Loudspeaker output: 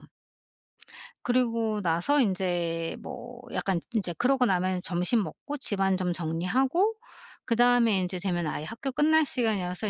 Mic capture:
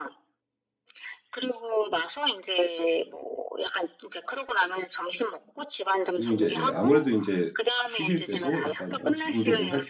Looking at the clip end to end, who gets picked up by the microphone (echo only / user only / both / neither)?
both